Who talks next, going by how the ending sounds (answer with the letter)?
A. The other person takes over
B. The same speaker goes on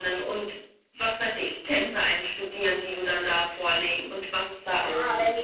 A